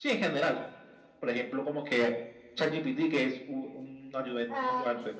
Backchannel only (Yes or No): No